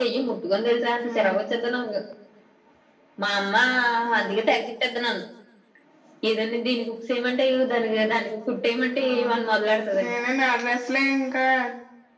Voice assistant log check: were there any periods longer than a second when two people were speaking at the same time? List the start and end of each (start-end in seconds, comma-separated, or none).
none